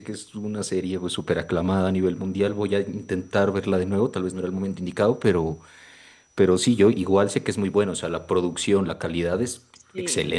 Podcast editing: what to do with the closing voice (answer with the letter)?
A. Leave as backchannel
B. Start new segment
B